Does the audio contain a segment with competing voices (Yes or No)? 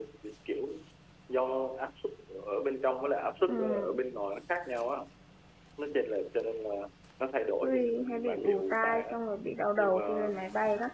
Yes